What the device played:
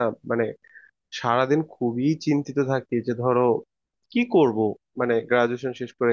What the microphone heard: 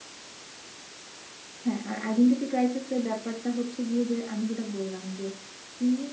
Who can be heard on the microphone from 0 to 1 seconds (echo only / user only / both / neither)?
neither